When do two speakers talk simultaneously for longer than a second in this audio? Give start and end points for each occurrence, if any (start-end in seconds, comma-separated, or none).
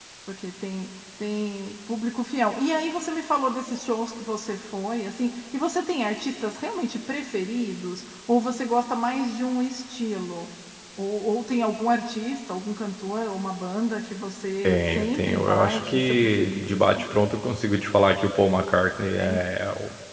14.6-17.0